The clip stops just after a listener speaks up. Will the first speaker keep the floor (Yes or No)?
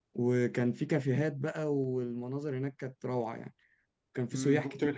No